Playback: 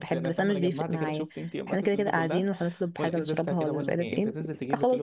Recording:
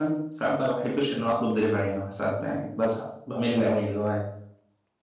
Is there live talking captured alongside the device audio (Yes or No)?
Yes